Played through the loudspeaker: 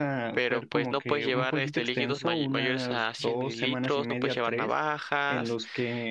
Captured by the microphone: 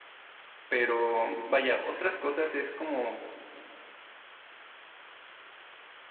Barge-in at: 0.7 s

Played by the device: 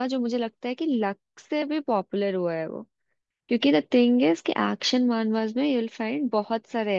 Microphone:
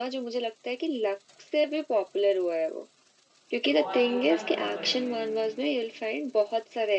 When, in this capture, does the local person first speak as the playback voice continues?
3.6 s

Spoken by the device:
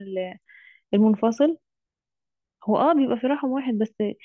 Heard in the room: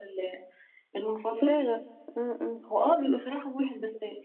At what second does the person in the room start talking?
1.4 s

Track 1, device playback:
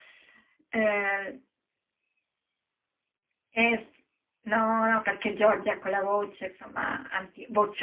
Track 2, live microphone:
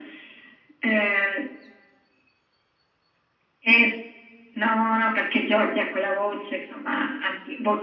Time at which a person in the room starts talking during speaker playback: none

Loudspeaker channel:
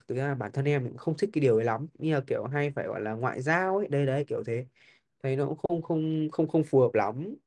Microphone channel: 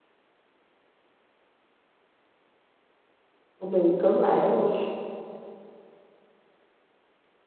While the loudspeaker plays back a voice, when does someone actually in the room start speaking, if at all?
3.6 s

